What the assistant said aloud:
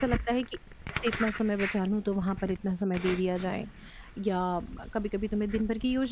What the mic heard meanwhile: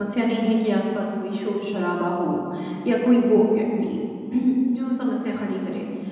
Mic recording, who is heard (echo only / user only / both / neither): user only